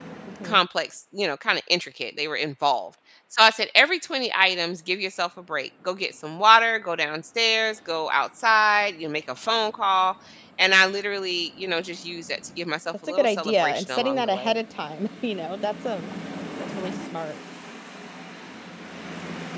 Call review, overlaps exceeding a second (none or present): present